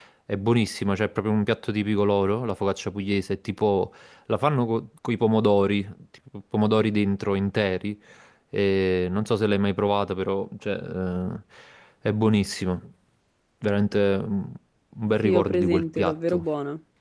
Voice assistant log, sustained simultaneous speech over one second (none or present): present